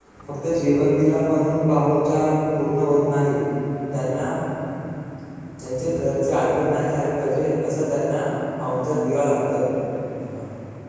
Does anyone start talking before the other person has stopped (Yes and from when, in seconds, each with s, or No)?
No